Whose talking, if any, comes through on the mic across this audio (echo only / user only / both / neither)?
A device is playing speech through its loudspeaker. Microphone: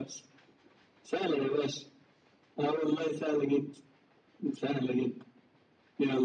echo only